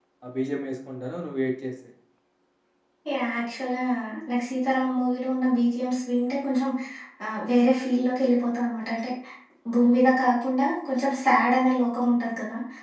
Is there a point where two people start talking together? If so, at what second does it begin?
none

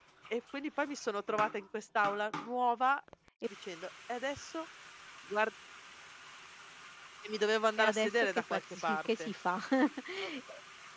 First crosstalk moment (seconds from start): 7.8 s

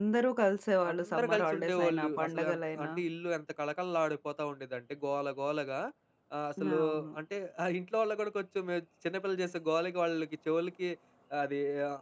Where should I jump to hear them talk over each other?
0.9 s

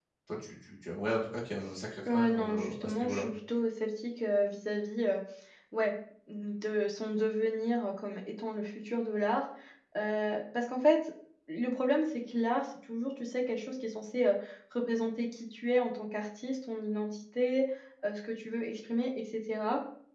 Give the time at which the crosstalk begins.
2.0 s

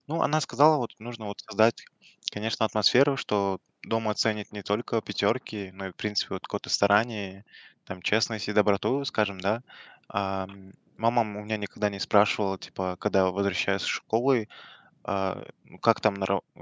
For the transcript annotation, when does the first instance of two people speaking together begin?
none

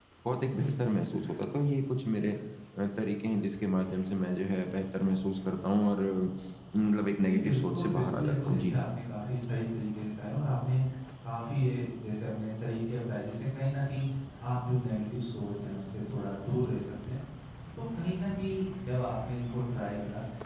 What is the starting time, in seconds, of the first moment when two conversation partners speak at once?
7.2 s

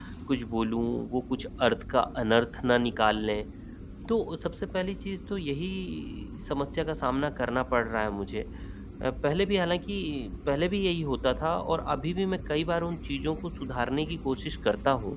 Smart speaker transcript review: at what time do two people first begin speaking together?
none

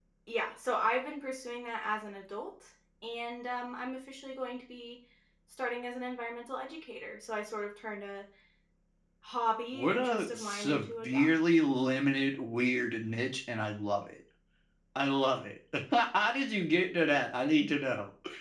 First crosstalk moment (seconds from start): 9.7 s

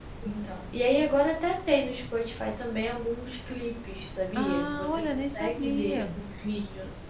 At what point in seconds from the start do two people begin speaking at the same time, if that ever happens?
4.3 s

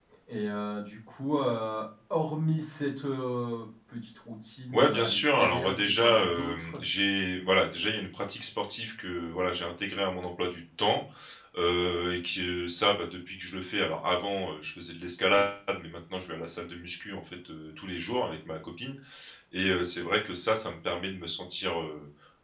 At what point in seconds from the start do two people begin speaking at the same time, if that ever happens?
4.7 s

